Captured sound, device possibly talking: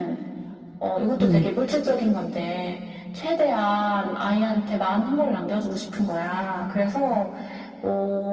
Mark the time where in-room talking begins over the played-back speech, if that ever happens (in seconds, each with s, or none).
1.2 s